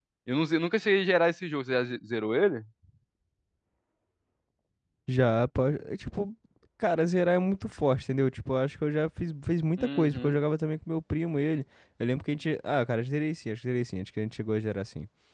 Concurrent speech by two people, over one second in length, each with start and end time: none

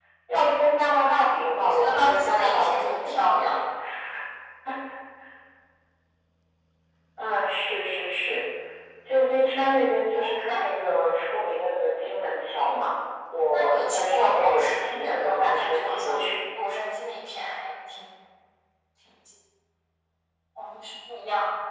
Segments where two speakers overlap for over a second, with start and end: 1.4-3.6, 13.5-16.3

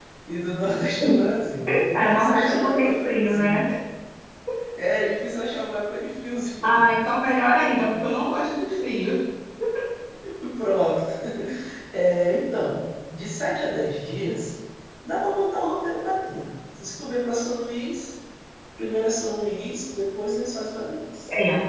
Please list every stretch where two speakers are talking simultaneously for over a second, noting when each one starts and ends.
1.9-3.6

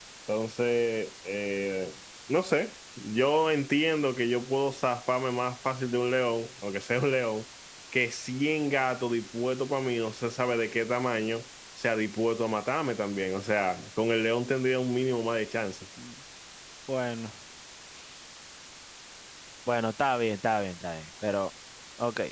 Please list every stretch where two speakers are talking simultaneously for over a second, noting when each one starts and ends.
none

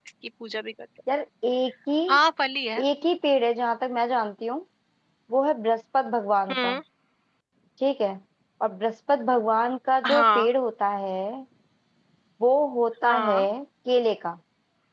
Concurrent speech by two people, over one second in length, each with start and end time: none

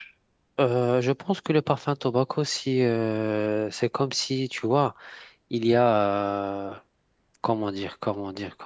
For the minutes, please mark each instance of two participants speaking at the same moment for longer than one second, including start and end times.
none

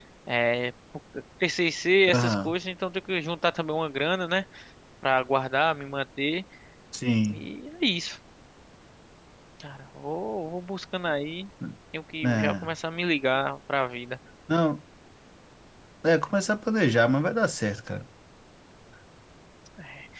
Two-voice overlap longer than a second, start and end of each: none

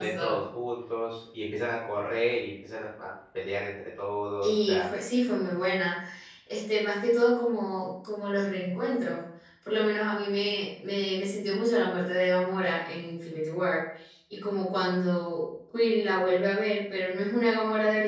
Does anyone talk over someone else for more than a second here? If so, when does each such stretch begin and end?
none

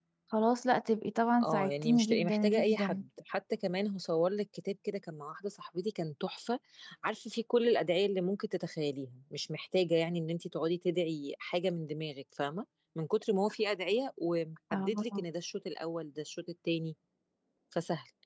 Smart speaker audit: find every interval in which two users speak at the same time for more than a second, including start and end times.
1.4-3.0

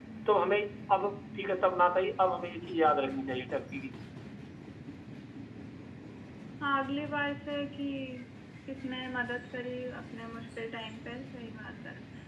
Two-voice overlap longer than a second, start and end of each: none

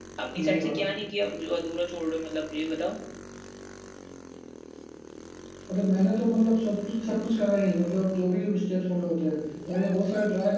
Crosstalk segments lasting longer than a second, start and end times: none

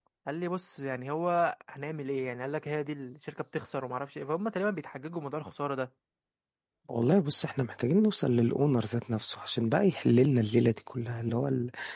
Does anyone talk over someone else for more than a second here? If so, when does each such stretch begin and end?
none

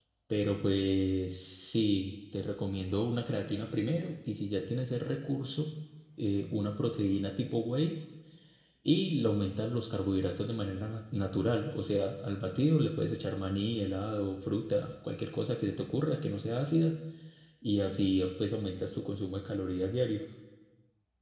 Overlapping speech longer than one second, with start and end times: none

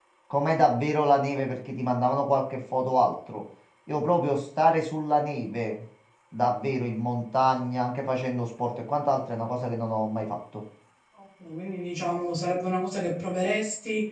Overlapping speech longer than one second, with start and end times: none

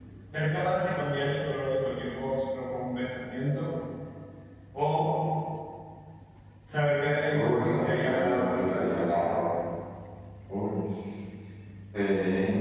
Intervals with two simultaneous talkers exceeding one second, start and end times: 7.3-9.2

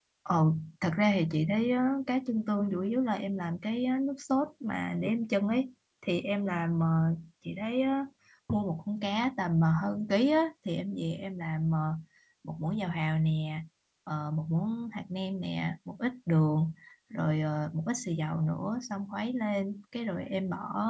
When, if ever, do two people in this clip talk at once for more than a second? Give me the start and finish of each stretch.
none

